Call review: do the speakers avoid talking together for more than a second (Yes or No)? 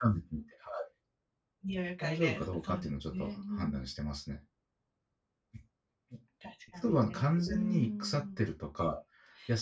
No